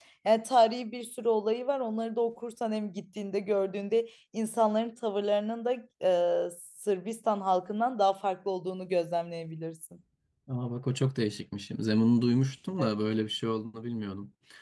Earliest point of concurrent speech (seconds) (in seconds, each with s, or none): none